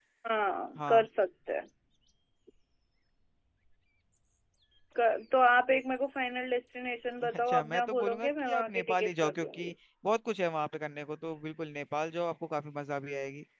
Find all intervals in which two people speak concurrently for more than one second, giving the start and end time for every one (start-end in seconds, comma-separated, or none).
7.3-9.7